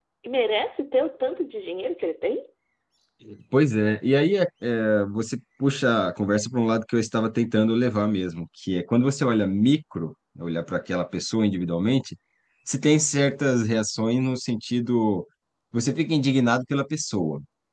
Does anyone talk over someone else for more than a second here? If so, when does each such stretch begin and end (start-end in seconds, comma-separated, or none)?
none